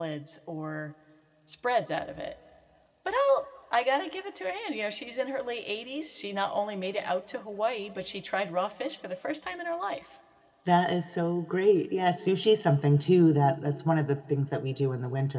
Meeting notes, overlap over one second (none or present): none